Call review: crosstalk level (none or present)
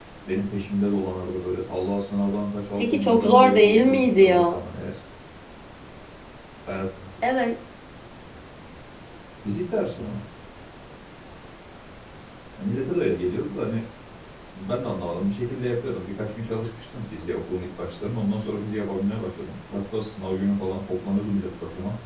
present